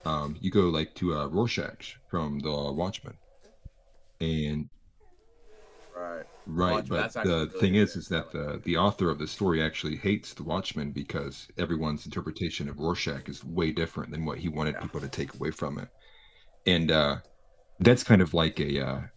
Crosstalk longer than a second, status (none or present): present